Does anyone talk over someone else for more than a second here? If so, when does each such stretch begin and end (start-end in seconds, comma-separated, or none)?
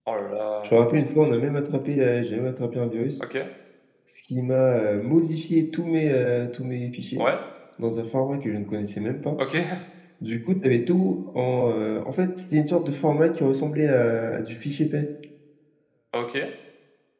none